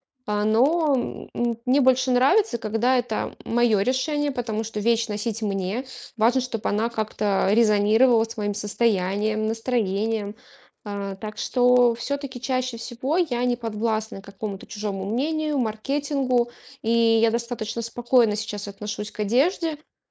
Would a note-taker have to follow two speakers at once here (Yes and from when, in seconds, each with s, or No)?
No